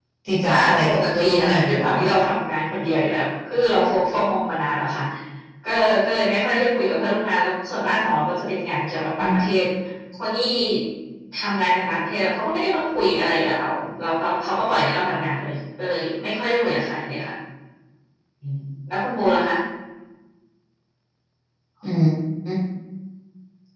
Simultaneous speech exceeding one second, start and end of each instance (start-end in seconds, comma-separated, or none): 0.5-2.2